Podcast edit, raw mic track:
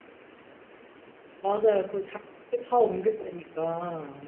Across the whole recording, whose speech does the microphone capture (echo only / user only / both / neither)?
user only